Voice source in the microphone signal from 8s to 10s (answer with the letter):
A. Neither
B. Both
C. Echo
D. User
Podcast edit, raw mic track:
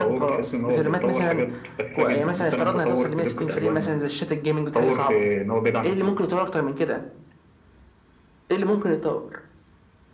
C